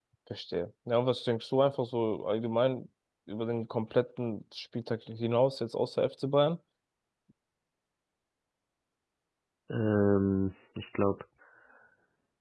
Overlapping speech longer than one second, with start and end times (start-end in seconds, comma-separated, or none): none